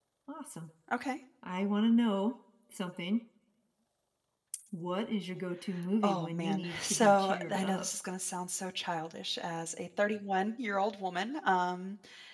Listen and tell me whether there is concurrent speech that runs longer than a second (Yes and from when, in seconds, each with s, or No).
Yes, from 6.0 s